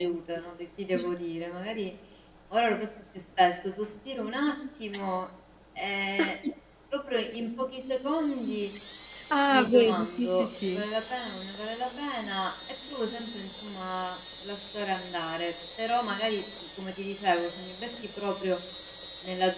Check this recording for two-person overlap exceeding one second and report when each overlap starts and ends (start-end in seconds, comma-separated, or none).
9.5-10.8